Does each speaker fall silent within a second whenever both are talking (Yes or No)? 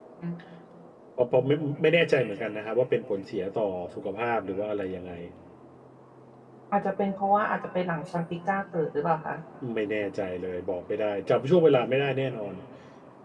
Yes